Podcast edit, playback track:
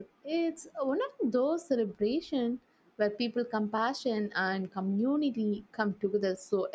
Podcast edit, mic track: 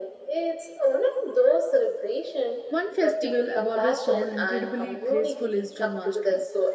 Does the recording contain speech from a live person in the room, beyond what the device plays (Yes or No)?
Yes